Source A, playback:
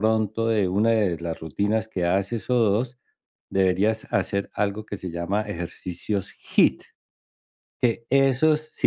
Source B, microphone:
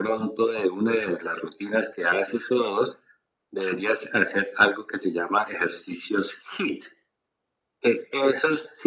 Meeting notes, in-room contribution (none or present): none